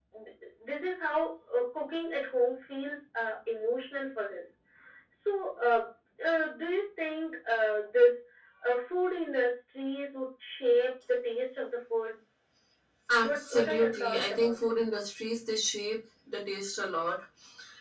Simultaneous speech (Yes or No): Yes